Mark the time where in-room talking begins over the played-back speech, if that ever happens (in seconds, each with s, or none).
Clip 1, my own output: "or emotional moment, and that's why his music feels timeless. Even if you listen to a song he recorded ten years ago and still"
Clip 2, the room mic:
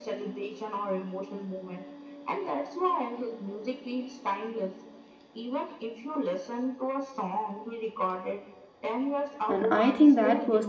9.5 s